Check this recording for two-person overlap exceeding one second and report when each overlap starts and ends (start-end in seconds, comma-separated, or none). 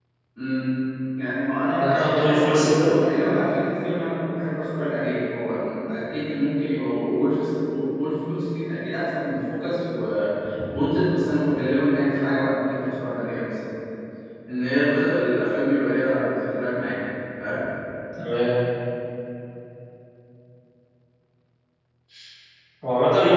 1.8-3.4